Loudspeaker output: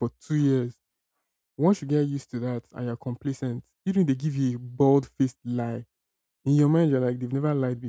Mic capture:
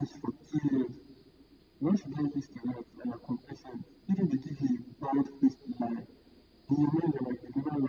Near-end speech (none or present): none